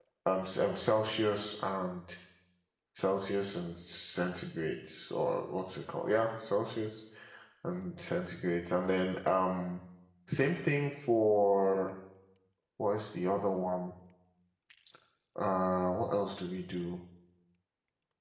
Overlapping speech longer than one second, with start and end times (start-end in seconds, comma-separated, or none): none